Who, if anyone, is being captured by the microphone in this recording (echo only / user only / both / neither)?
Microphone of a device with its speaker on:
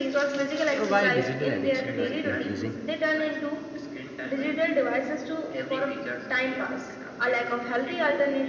both